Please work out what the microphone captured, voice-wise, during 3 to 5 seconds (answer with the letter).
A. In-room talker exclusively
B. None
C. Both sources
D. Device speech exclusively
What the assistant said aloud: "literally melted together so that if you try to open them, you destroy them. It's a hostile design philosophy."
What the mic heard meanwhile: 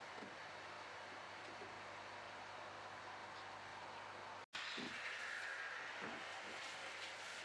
B